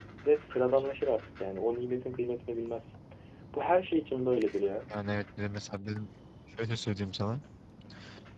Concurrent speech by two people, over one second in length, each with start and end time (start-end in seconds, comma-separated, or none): none